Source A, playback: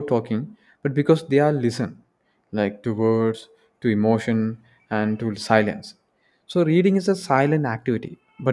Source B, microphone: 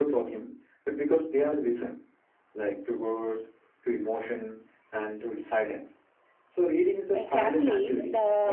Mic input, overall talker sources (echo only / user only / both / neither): both